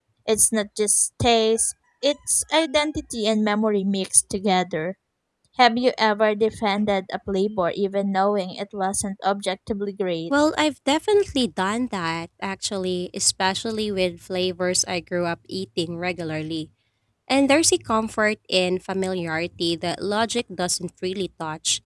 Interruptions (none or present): none